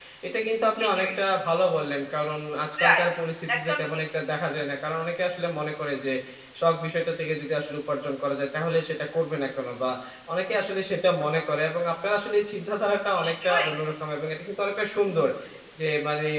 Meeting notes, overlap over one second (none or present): none